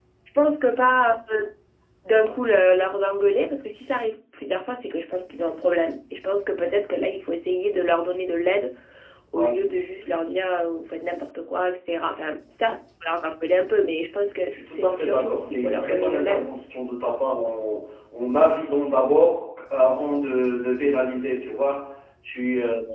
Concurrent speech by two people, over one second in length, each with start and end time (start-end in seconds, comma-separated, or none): 14.5-16.5